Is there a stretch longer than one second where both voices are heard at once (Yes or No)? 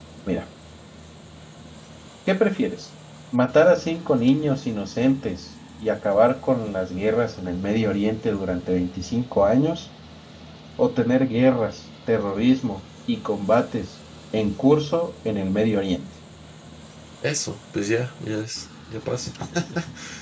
No